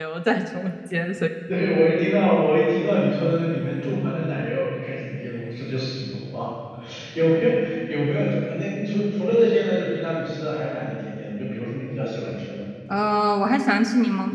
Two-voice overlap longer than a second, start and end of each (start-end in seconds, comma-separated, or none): none